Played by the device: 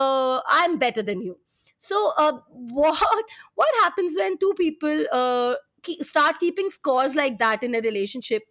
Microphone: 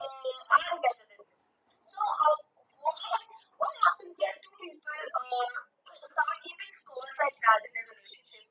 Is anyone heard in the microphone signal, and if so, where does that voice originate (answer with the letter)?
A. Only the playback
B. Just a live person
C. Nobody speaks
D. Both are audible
A